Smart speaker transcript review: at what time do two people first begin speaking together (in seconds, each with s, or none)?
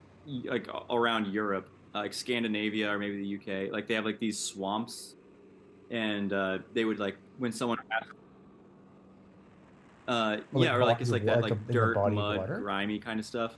10.5 s